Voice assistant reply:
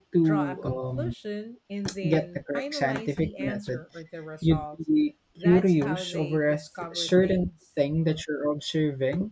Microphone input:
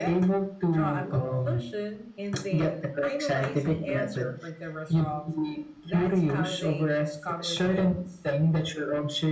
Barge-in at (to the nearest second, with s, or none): none